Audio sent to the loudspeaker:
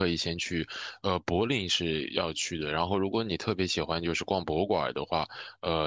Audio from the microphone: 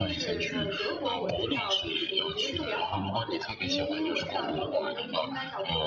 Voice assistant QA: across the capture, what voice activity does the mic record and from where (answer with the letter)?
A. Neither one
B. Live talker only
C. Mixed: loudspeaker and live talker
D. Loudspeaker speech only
C